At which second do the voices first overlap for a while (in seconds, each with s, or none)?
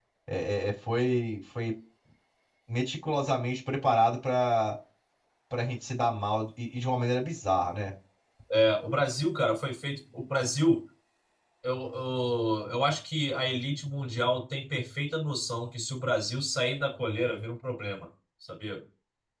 none